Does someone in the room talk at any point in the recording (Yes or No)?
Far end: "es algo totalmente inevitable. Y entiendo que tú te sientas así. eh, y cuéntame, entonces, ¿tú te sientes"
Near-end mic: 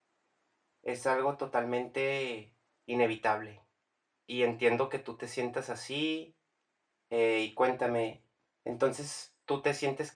No